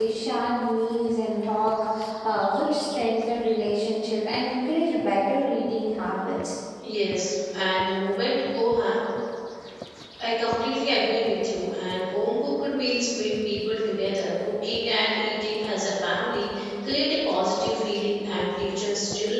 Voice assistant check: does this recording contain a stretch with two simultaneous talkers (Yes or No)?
No